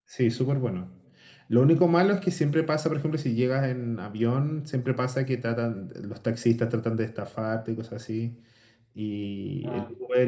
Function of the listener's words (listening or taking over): listening